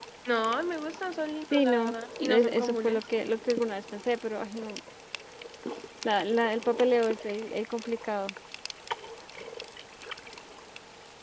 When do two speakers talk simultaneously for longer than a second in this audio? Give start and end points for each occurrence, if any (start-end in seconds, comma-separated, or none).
1.5-3.0